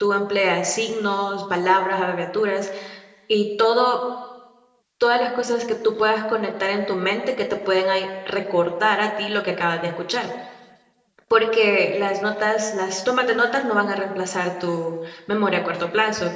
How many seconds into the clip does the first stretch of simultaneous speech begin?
none

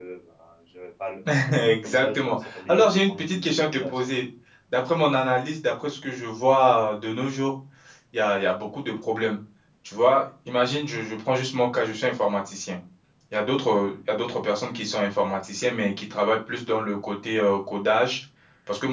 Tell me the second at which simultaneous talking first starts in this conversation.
2 s

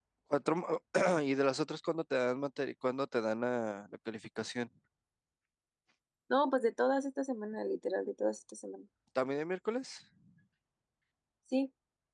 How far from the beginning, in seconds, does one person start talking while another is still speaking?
none

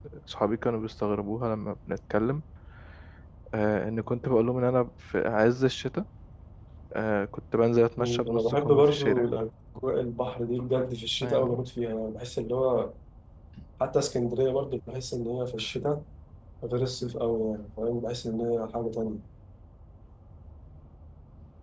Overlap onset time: 8 s

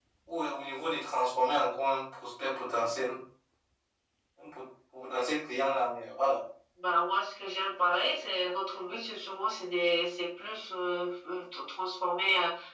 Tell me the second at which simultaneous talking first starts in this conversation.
none

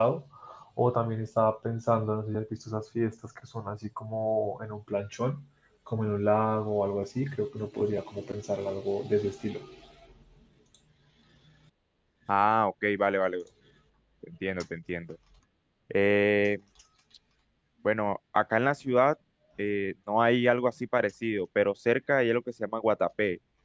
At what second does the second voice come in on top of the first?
none

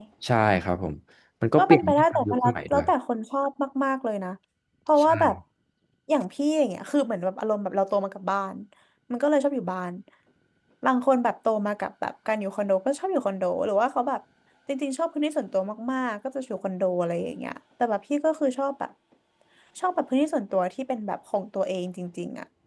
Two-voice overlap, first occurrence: 2 s

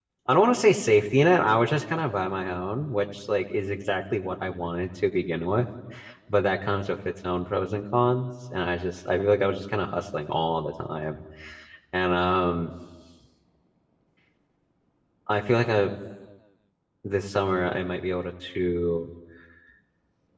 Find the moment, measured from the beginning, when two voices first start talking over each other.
none

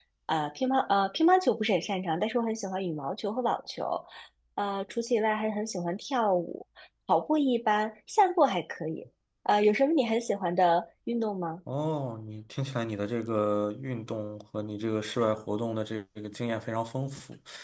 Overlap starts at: none

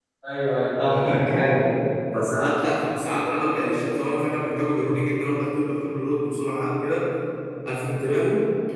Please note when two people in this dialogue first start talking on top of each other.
none

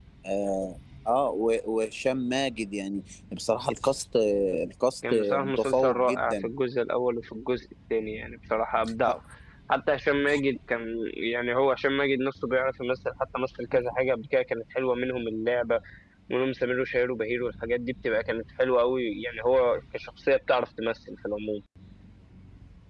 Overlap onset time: 5 s

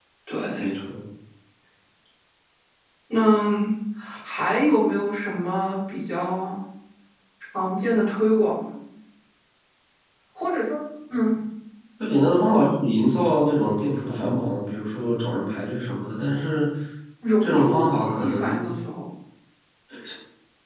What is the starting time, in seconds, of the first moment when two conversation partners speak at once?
17 s

